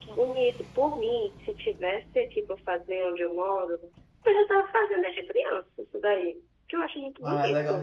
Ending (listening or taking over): taking over